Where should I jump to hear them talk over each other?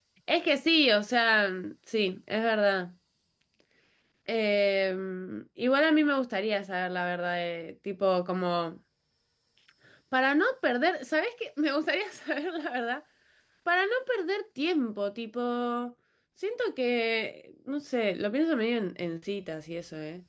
none

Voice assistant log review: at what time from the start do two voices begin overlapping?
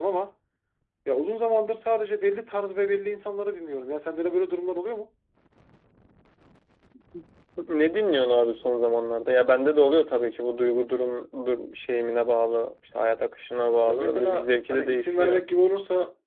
13.9 s

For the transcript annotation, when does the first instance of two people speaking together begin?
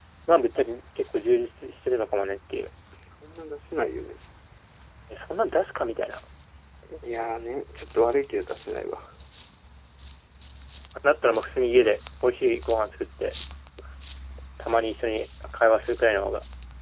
none

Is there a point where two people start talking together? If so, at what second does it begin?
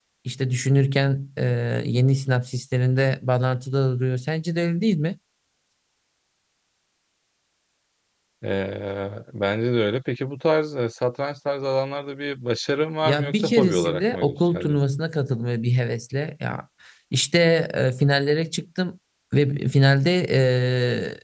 13.0 s

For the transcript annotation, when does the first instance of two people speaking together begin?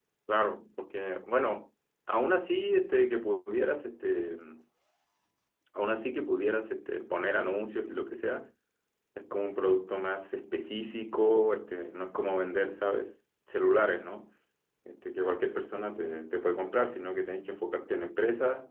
none

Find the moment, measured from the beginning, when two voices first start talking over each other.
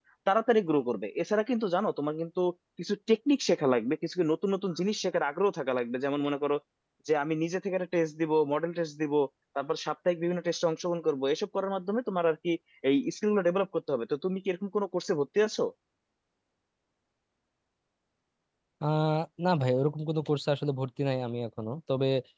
none

